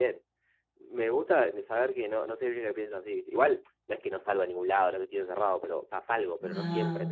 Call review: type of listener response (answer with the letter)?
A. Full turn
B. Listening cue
B